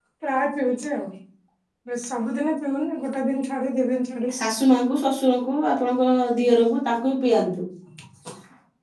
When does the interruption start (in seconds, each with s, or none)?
none